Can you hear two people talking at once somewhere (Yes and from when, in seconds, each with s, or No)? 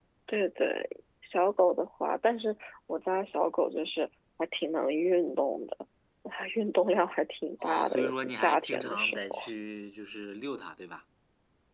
Yes, from 7.6 s